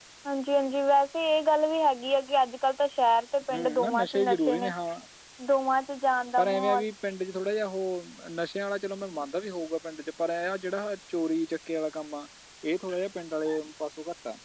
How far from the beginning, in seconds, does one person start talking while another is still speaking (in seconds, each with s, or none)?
3.5 s